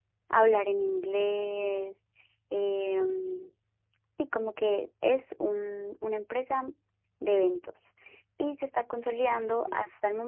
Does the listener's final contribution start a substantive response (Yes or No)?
No